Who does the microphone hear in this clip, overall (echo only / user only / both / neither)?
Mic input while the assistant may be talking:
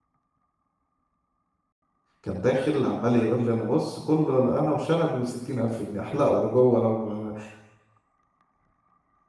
user only